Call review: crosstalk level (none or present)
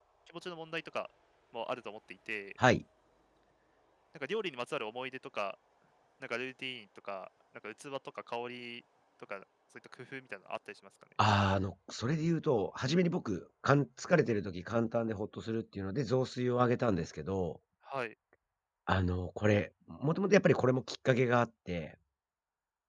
none